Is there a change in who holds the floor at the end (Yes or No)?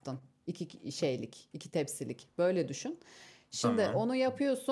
No